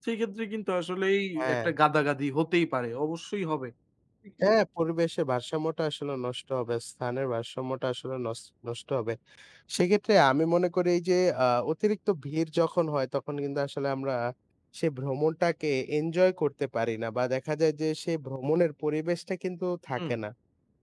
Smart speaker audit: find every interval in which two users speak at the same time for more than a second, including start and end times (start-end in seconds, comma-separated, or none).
none